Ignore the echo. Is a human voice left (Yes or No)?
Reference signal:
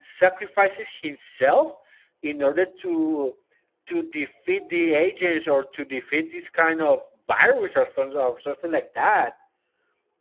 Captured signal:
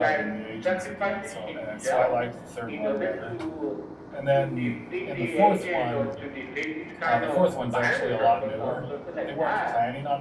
Yes